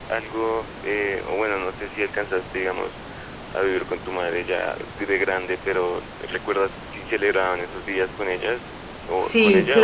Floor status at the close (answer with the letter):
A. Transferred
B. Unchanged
A